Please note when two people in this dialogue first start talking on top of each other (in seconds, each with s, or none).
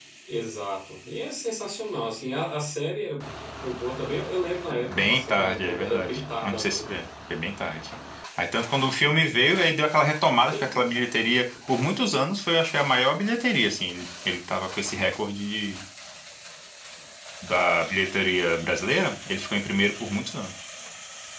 4.9 s